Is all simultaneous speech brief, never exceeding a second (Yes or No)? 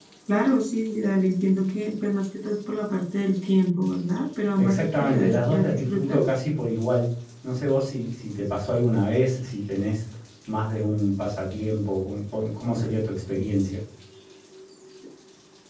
No